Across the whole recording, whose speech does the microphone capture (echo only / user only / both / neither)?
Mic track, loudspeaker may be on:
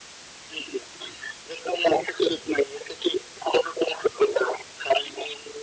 echo only